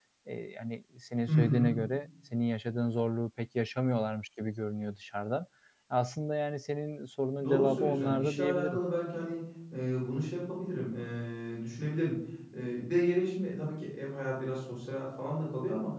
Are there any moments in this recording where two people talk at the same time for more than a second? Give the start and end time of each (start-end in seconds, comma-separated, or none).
7.4-8.8